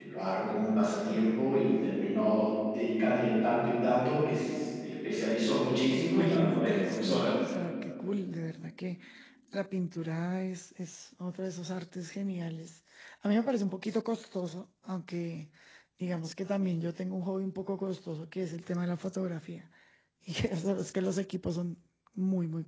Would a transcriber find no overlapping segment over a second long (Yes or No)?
No